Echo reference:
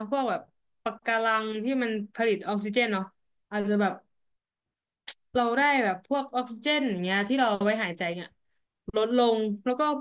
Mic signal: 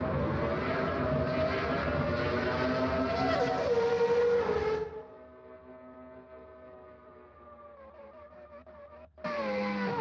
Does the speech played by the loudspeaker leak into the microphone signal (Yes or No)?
No